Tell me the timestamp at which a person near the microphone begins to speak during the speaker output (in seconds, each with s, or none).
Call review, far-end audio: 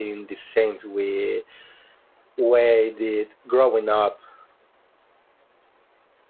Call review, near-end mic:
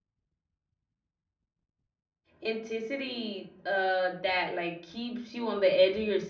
2.4 s